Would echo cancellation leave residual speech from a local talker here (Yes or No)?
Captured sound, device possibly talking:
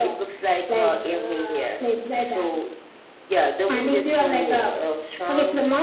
No